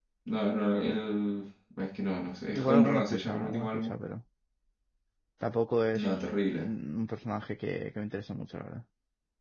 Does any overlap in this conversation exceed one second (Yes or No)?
Yes